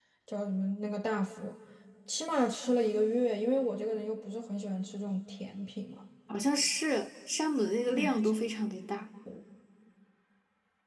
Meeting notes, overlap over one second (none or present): none